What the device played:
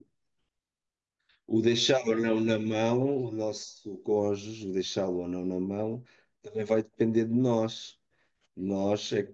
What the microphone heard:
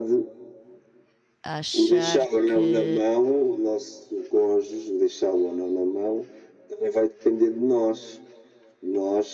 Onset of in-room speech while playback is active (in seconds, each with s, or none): 1.4 s